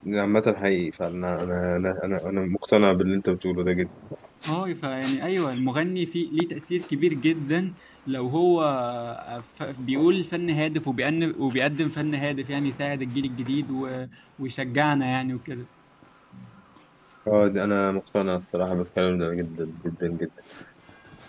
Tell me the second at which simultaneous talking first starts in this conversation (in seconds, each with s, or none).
none